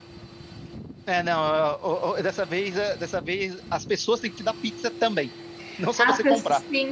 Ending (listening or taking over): taking over